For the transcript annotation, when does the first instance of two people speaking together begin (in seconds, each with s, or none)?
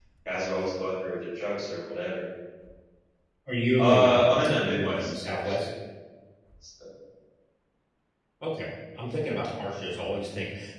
3.8 s